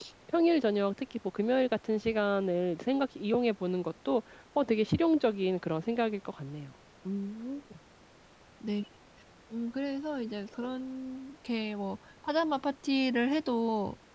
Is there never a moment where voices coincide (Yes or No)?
Yes